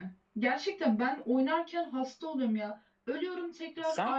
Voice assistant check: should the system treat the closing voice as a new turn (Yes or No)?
No